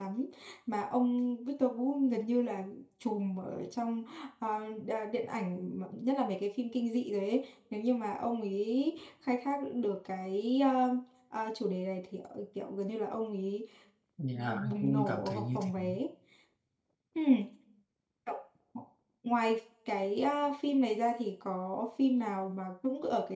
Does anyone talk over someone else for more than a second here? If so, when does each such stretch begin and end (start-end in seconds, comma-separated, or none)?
14.3-15.7